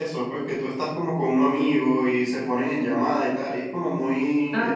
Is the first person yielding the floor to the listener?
No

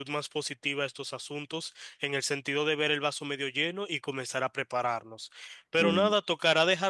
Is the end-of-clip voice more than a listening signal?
No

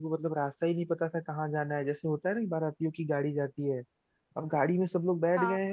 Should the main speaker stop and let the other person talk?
No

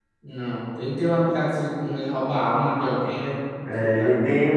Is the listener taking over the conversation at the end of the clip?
Yes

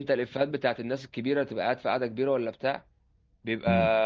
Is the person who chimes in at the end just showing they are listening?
Yes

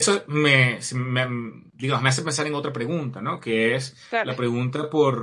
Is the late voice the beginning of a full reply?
No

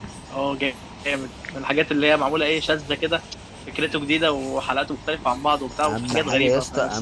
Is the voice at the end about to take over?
Yes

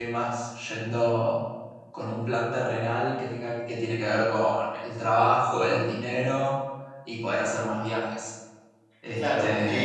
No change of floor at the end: No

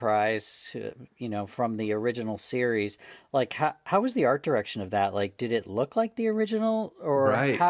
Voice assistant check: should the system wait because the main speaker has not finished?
No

